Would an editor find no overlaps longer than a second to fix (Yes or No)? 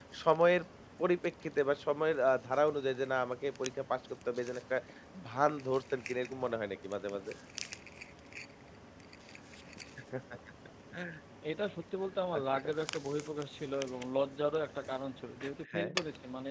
Yes